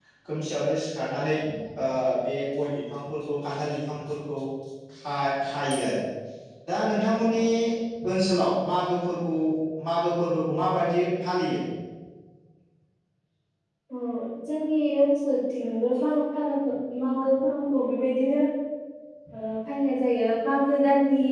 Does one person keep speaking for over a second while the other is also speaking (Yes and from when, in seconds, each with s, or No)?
No